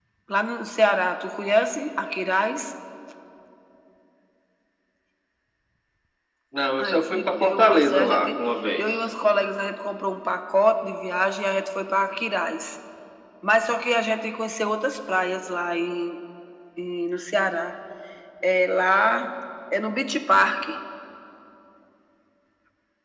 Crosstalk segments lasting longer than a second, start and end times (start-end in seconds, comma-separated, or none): 6.8-8.4